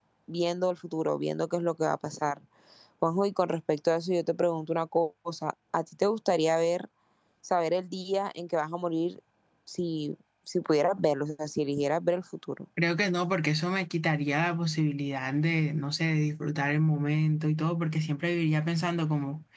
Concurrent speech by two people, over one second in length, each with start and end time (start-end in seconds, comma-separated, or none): none